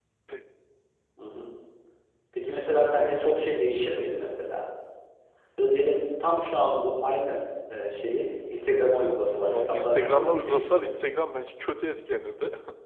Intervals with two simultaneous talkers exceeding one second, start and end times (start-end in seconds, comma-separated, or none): 9.4-10.9